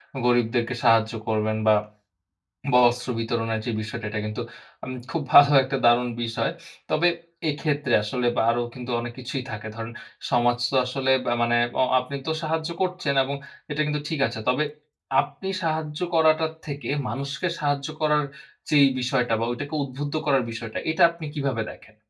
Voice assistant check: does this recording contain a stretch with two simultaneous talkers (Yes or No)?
No